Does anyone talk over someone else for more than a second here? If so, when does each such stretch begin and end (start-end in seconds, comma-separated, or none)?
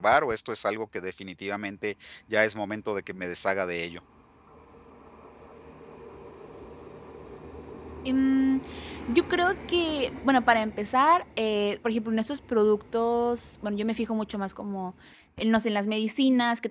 none